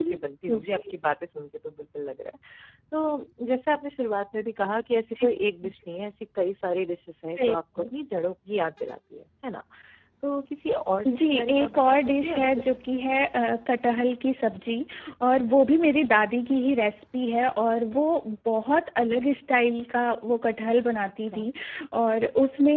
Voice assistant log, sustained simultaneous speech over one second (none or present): present